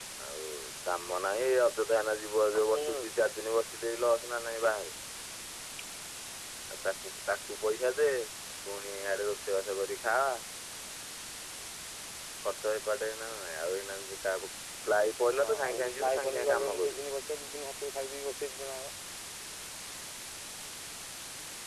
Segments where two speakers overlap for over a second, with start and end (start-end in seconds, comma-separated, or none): 15.3-17.0